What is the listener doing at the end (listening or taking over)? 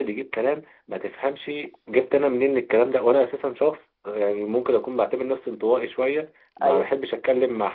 listening